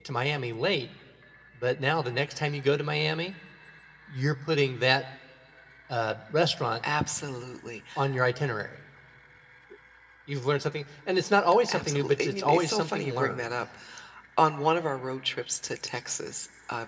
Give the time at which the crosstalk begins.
11.7 s

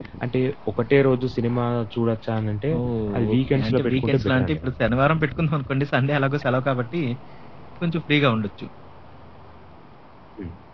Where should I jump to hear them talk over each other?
3.3 s

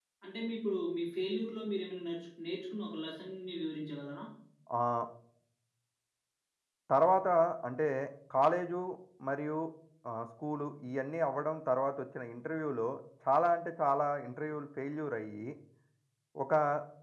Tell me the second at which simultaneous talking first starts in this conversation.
none

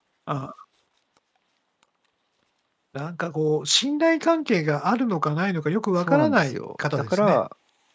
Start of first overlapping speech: 6.0 s

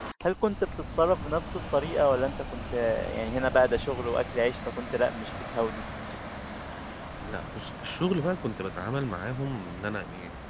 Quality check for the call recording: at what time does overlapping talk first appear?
none

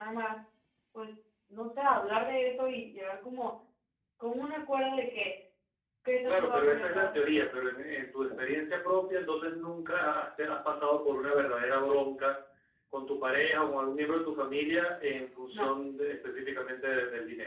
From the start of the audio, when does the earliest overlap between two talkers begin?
6.3 s

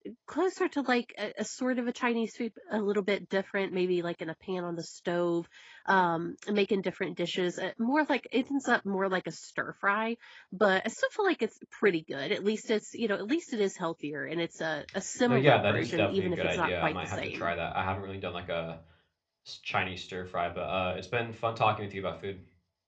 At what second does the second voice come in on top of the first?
15.3 s

